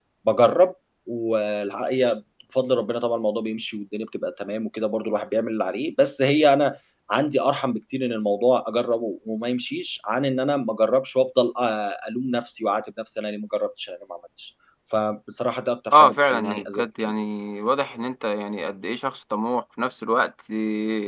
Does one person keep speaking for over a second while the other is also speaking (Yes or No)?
Yes